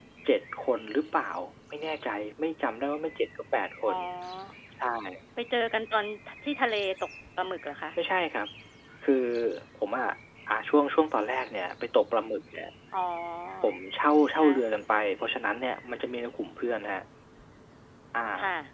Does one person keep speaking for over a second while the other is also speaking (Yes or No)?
No